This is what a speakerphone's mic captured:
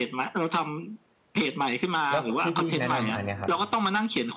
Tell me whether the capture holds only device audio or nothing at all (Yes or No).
No